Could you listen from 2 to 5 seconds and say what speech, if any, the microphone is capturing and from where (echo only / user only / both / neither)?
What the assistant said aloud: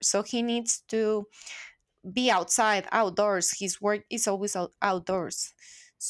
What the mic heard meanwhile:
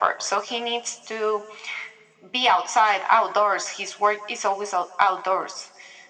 echo only